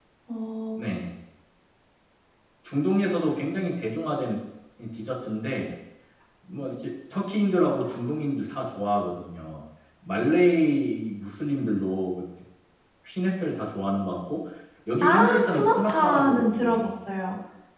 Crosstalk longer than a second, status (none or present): present